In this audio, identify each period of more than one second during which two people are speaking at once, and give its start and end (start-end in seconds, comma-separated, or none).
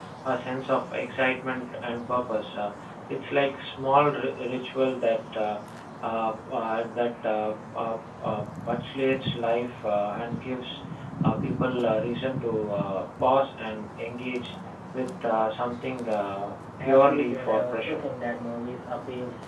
16.8-18.0